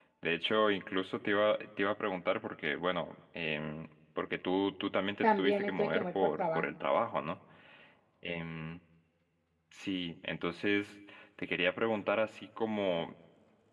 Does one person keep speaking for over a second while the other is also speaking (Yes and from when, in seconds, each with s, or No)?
Yes, from 5.2 s